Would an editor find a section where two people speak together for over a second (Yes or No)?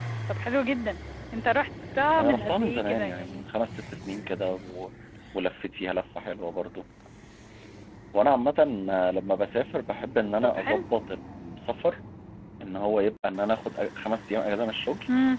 Yes